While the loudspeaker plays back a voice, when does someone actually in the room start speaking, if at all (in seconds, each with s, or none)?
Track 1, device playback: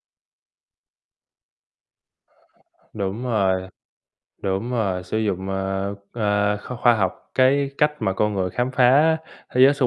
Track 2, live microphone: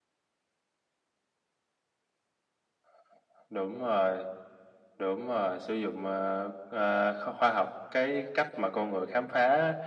none